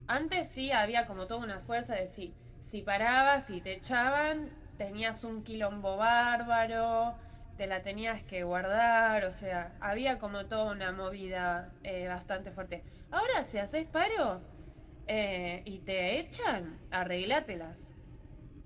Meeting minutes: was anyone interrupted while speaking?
No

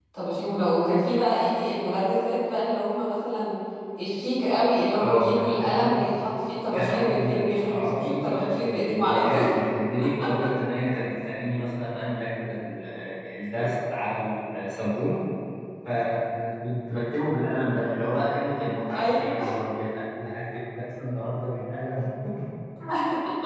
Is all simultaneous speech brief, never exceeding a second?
No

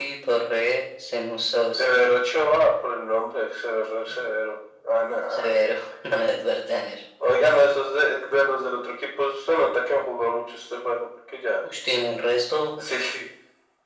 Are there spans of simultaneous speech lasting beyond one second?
No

